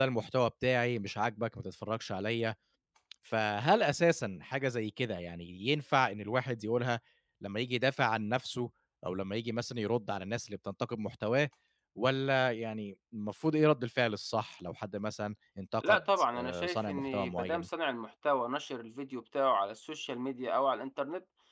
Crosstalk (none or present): present